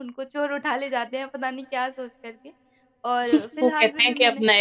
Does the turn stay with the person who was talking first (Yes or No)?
No